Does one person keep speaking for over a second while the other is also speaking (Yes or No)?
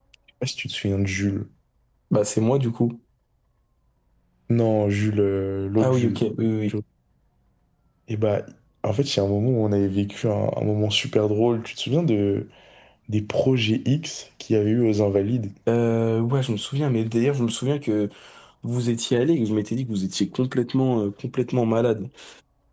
No